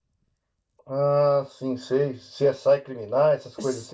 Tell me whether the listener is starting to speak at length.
Yes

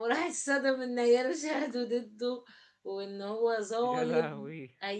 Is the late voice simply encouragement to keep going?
Yes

